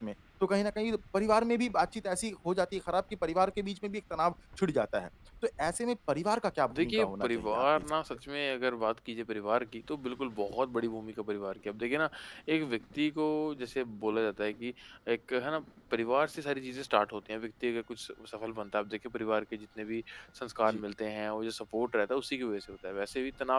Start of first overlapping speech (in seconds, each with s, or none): 6.7 s